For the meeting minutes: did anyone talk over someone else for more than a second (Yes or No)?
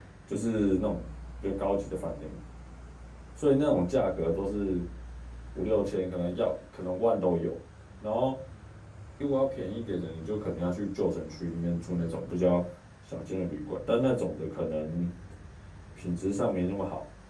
No